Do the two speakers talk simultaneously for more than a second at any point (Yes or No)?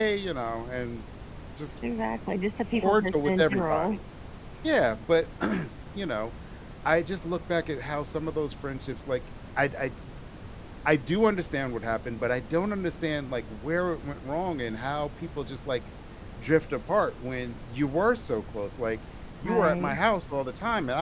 Yes